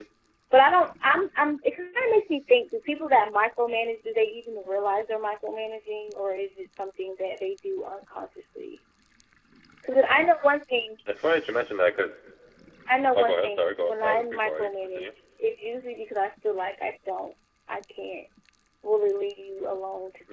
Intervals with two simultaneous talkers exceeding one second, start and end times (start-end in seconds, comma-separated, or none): 13.1-15.1